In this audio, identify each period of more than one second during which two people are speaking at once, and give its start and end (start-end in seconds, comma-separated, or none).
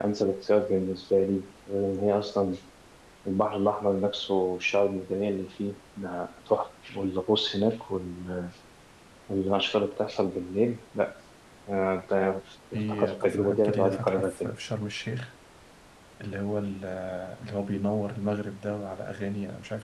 12.7-14.5